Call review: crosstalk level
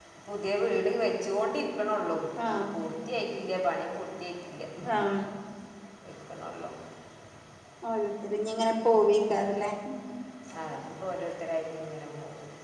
none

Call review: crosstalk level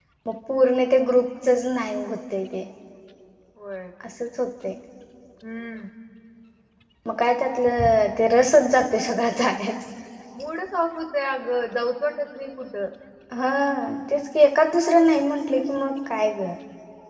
none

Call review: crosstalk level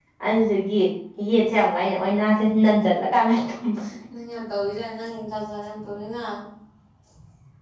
none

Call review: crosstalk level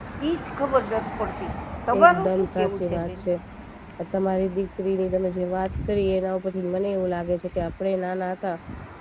present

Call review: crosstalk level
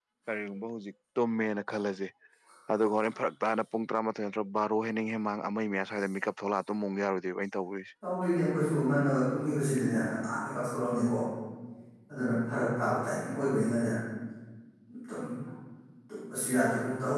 none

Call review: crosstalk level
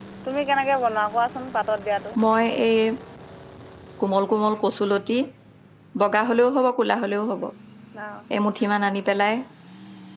none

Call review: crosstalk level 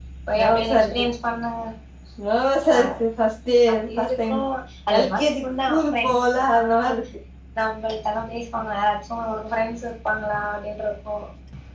present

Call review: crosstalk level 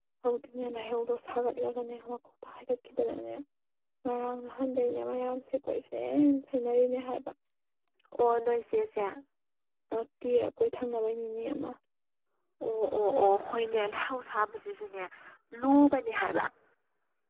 none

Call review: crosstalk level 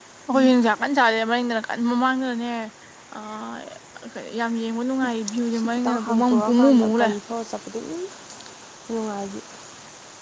present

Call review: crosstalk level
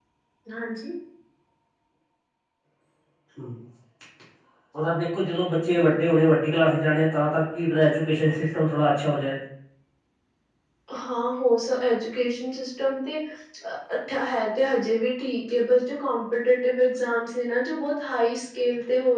none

